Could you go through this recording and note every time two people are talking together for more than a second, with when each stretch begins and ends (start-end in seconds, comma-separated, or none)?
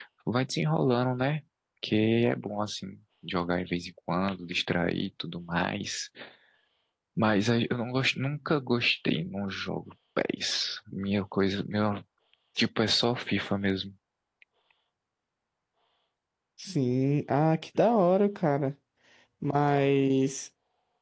none